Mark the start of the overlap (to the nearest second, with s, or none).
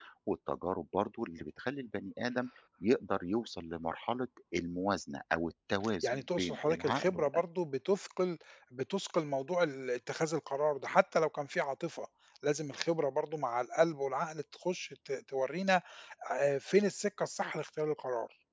6 s